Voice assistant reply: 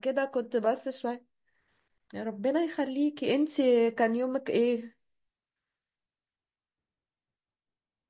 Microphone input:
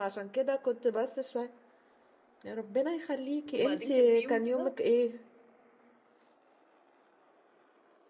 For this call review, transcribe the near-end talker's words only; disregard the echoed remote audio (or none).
وبعدين كان في يوم كده